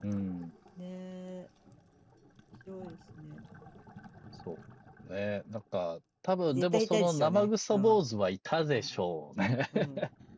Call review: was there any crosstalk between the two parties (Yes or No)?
Yes